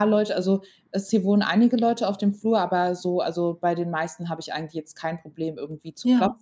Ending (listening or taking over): listening